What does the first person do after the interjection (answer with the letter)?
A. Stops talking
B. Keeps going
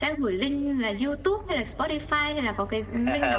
A